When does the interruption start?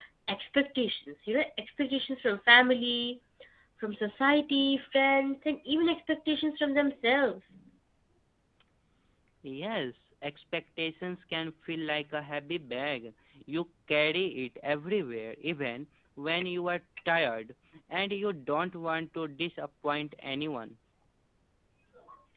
none

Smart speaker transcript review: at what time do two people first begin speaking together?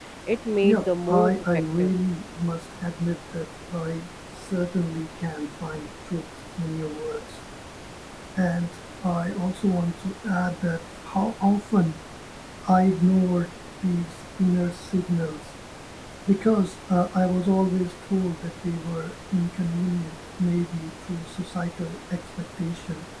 1 s

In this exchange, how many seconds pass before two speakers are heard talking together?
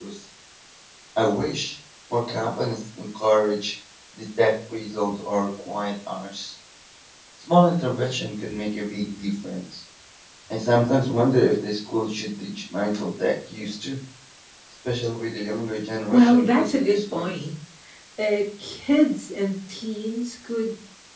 16 s

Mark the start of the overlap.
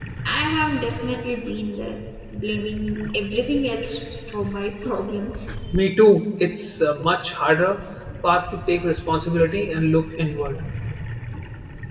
none

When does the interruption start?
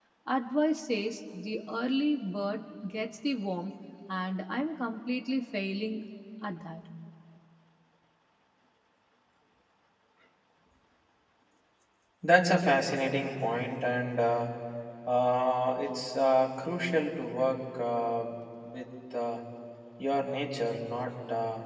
none

